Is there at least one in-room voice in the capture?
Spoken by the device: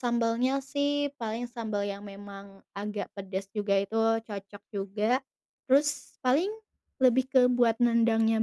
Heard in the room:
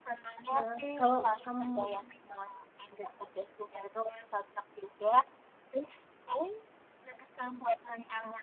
Yes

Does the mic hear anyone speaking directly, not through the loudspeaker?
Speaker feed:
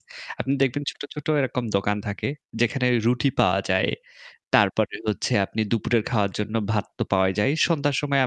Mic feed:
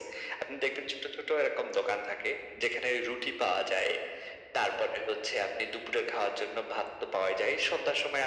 No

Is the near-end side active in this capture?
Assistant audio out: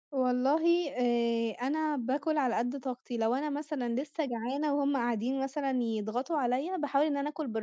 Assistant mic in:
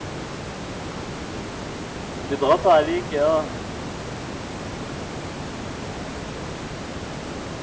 Yes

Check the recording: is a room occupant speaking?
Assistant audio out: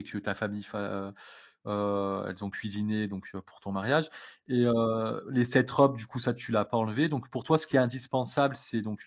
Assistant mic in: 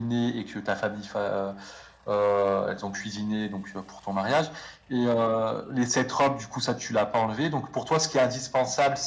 No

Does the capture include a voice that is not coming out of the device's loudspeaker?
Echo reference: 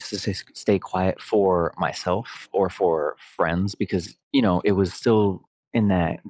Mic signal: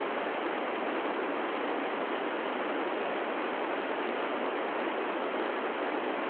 No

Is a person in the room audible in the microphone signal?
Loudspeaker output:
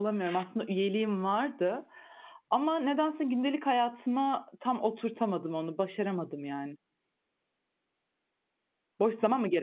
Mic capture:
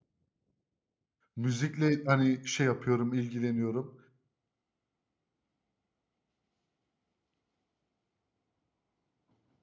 Yes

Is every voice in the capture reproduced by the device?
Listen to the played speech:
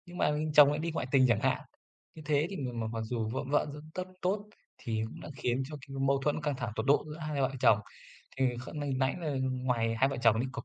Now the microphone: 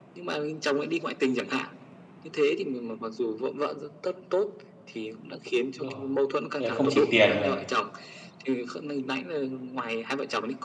No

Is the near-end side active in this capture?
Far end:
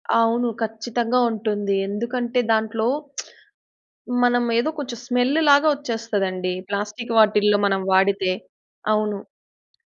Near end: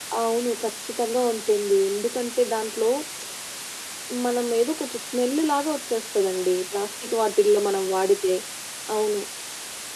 No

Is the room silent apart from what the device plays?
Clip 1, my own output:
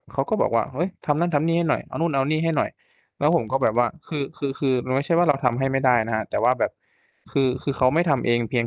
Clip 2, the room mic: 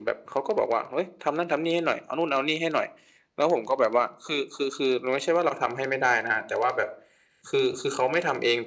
Yes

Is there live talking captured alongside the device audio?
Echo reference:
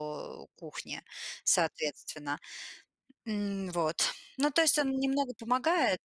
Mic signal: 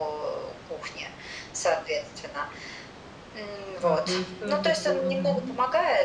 Yes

